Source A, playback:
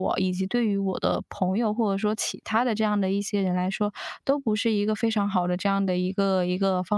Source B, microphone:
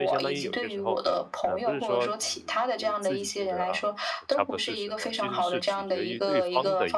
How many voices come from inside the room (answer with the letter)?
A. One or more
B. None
A